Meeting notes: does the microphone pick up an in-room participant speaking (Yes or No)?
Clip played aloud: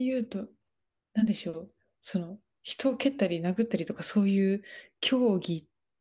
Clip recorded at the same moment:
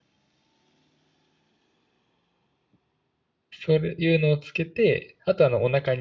Yes